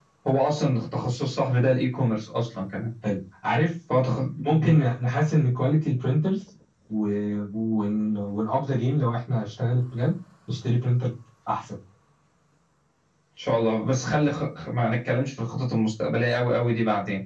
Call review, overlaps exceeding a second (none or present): none